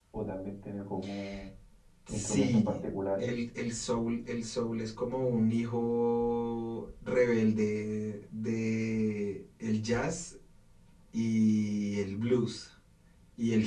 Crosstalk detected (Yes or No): Yes